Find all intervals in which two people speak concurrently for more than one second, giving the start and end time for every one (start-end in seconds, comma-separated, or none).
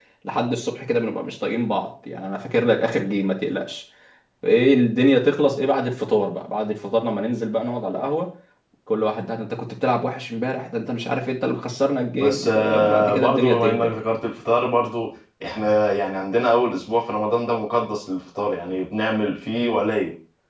12.2-14.0